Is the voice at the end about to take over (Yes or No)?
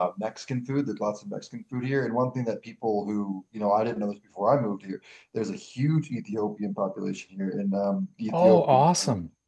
No